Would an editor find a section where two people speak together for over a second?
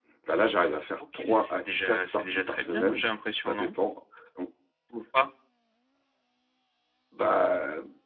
Yes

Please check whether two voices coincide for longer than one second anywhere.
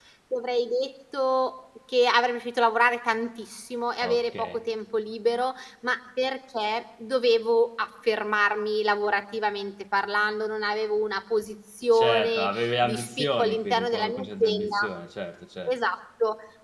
Yes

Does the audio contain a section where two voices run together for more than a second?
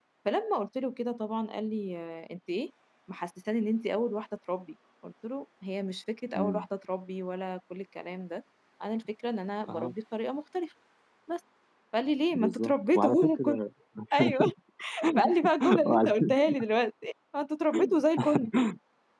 Yes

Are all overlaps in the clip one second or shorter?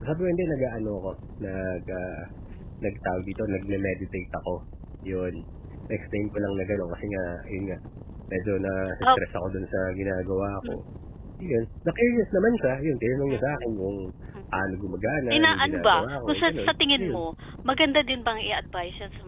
No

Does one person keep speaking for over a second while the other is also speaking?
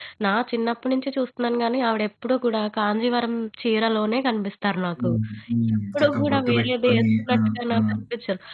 Yes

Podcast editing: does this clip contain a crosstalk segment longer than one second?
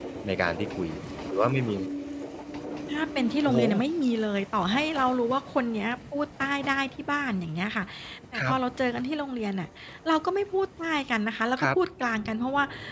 No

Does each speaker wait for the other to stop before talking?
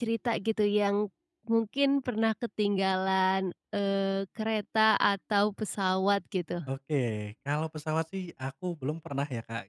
Yes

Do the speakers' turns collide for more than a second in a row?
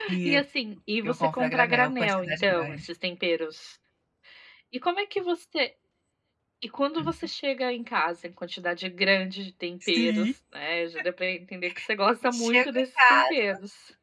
Yes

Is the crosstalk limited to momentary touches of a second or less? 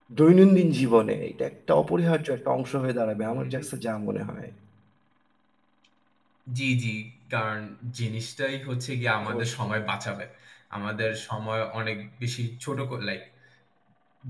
Yes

